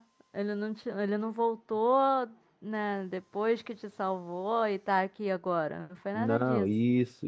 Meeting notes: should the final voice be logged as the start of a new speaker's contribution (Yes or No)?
Yes